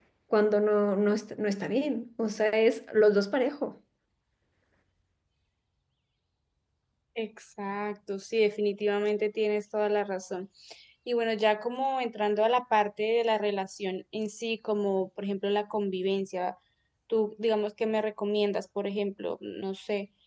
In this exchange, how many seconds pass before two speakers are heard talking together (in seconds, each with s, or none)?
none